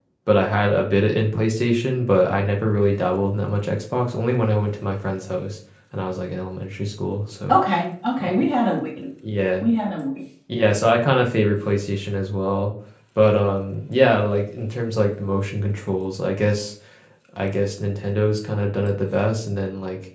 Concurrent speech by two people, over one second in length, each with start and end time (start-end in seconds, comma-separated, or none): none